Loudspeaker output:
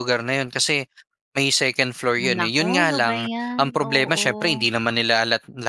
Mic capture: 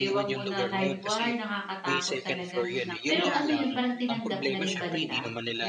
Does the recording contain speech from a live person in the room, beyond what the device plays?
Yes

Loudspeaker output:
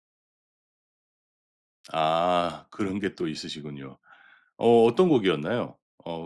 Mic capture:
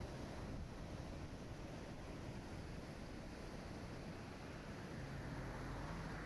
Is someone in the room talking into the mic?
No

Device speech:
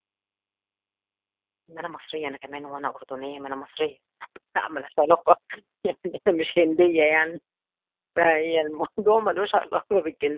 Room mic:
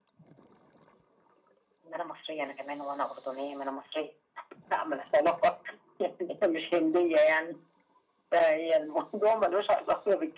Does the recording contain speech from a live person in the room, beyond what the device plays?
No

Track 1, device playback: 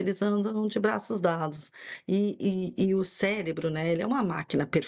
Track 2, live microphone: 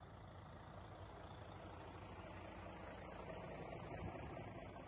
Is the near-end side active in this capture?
No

